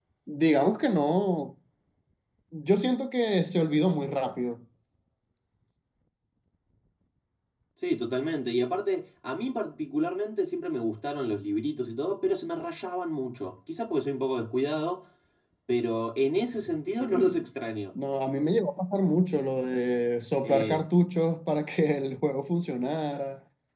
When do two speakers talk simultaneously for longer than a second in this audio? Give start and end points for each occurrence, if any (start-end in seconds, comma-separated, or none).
none